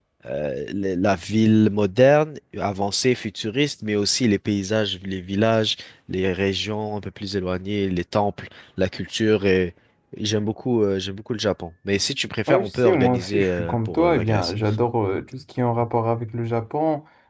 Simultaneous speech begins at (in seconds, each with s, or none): 12.5 s